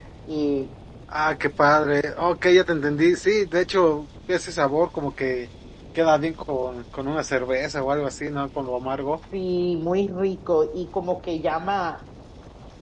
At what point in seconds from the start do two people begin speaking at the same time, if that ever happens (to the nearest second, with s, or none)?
none